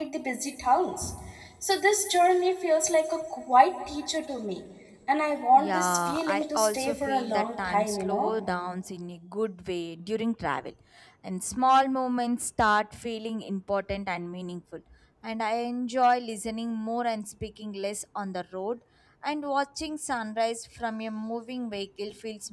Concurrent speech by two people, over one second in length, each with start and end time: 5.6-8.3

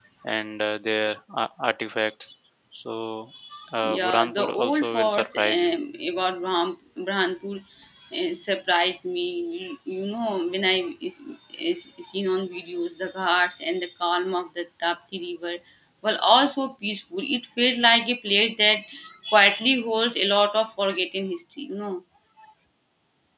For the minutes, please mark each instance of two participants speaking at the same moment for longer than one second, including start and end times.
3.8-5.8

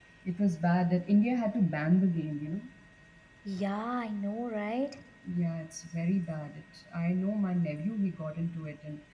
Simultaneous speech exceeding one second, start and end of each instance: none

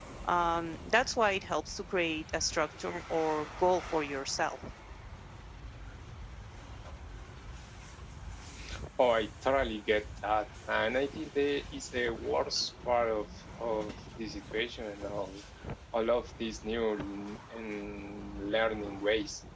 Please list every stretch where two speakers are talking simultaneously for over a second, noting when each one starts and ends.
none

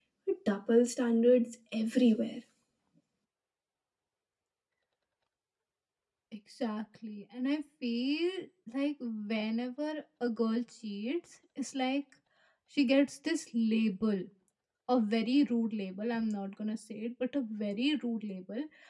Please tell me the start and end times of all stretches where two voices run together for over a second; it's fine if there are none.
none

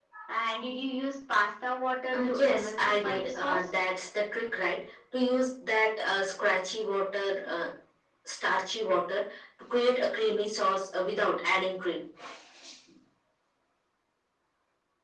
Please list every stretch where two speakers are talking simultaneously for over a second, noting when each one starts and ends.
2.1-3.7

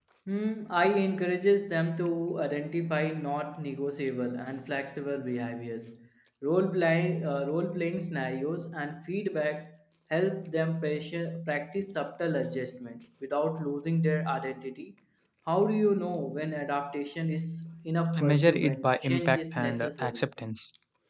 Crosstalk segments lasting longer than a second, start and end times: 18.2-20.3

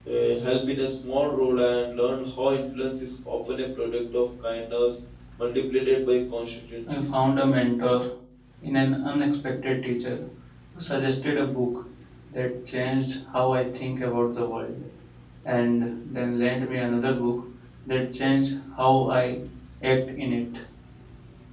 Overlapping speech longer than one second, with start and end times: none

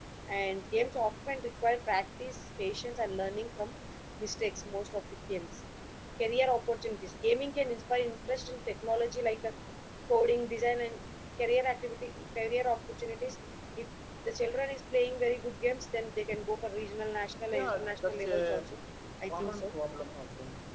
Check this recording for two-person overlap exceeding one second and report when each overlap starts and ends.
17.5-18.8

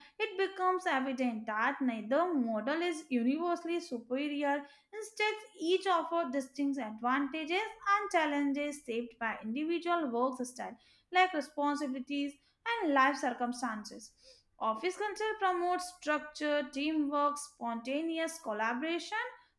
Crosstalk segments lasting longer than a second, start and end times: none

